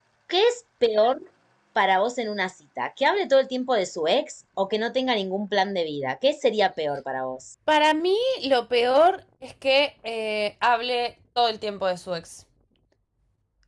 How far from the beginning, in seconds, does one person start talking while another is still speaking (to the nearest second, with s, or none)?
none